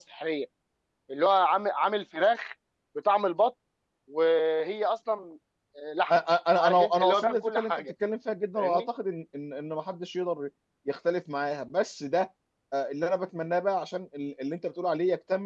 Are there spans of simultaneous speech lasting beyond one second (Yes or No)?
Yes